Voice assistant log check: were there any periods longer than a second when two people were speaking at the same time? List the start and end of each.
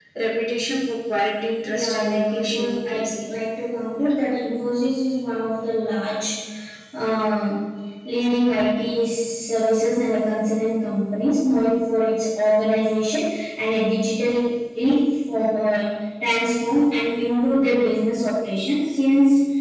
1.7-3.1

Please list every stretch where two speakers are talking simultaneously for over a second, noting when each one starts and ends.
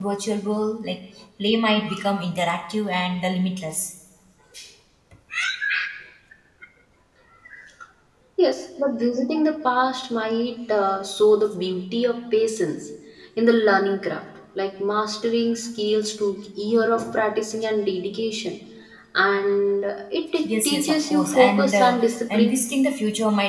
20.6-22.6

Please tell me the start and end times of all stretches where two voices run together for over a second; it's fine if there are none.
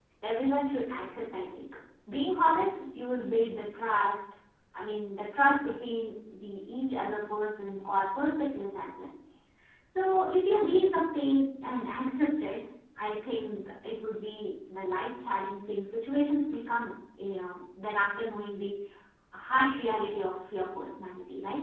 none

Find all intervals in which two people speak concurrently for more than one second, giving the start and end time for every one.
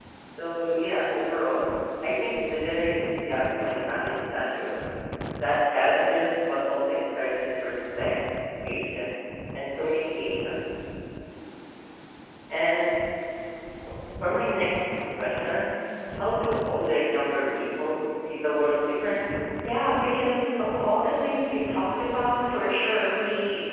none

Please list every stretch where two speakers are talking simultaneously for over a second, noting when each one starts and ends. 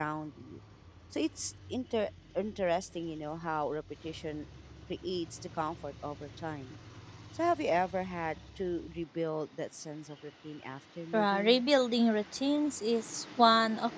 none

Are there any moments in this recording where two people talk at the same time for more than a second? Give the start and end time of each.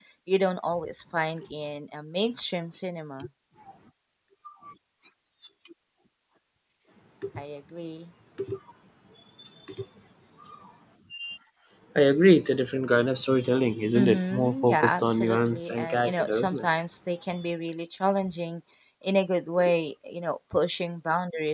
13.9-16.6

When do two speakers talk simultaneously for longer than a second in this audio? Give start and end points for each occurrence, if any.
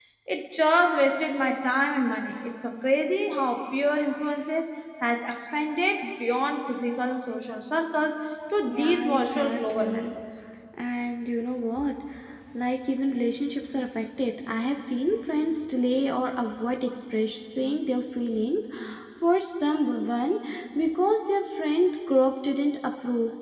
8.7-10.1

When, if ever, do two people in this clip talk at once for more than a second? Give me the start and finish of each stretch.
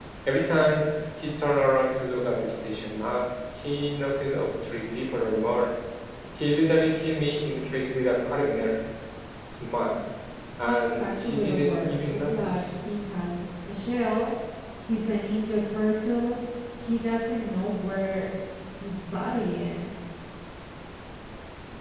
10.7-12.6

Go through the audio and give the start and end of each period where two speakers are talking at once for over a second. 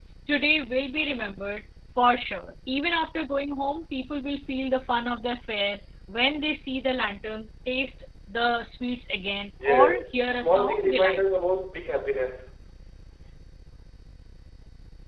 9.7-11.2

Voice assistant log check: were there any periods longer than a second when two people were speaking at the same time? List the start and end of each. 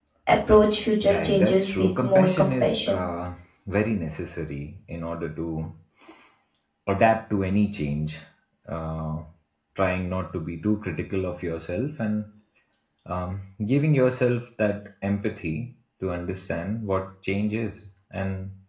1.0-3.0

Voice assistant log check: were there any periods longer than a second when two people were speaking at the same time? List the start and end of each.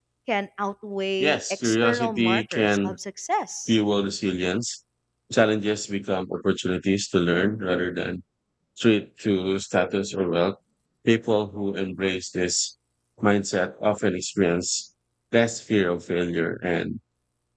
1.2-3.0

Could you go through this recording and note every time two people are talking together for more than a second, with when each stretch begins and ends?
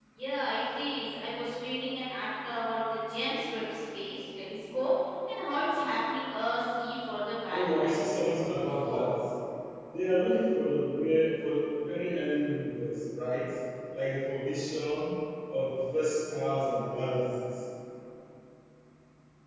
7.5-9.1

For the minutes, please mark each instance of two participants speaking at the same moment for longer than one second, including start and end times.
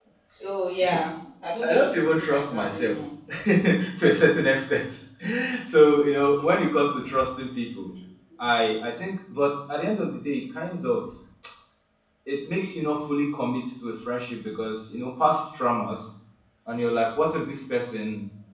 1.7-2.9

